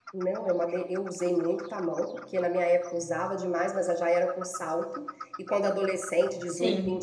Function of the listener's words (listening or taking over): listening